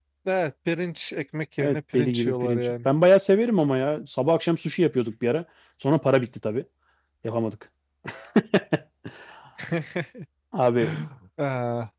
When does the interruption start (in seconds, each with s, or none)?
1.6 s